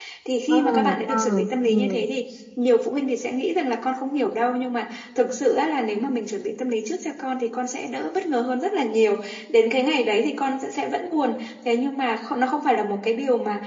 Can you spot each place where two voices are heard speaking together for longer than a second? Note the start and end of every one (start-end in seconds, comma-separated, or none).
0.6-2.0